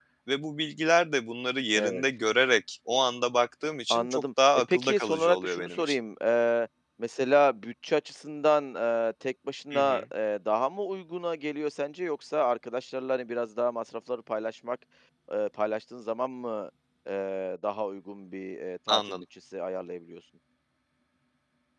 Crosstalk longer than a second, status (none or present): present